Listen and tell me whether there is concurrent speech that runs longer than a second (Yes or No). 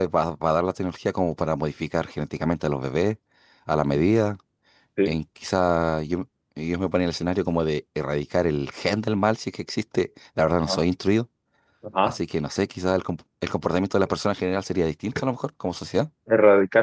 No